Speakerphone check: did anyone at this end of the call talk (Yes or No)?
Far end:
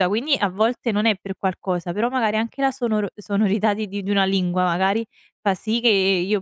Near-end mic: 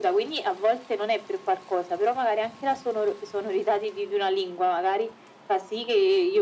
No